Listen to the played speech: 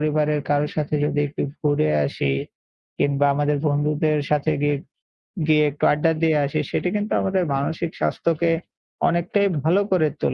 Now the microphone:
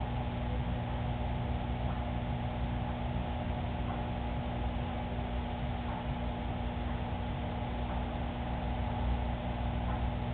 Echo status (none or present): none